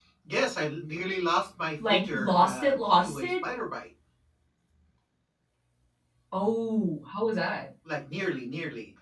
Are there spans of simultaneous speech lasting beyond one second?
Yes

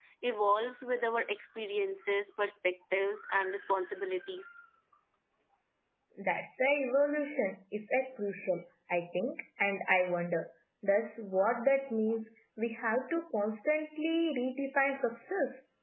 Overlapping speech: No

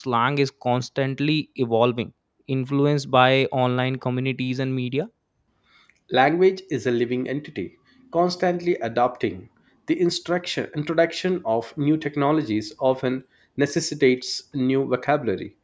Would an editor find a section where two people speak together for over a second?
No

